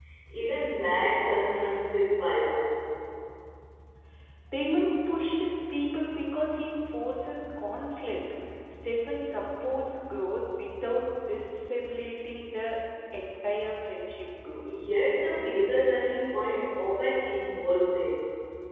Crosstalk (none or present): none